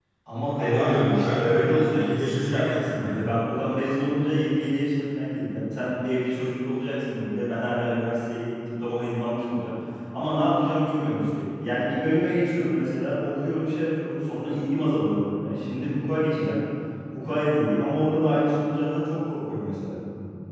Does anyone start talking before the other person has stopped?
Yes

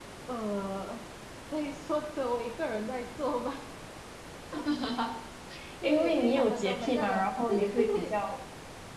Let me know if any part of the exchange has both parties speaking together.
Yes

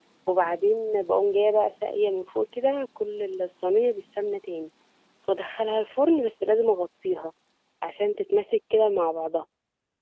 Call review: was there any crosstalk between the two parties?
No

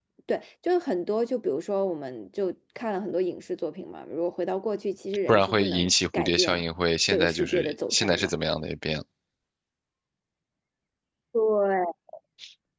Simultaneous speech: Yes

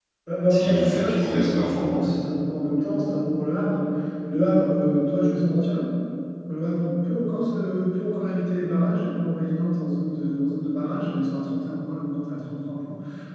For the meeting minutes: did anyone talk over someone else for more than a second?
Yes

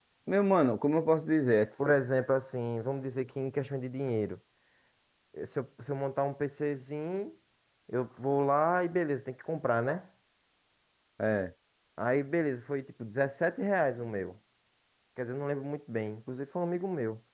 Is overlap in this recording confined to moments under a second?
Yes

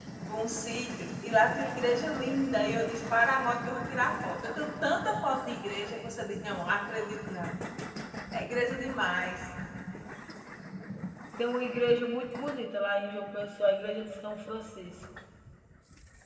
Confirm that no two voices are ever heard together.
Yes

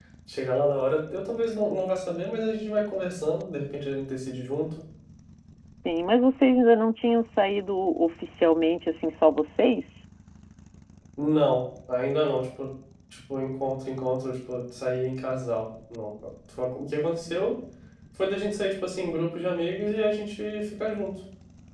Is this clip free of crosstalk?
Yes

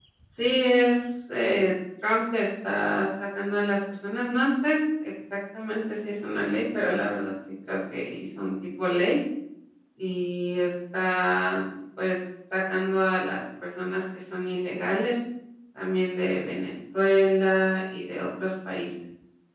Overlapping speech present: No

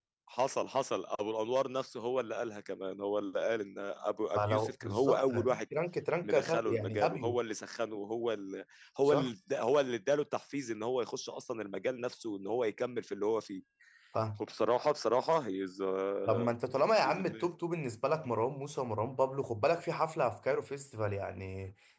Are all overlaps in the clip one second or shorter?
No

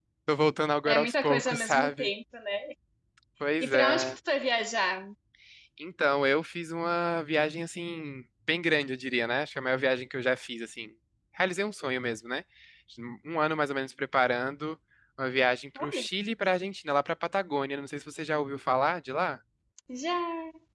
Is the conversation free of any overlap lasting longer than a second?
No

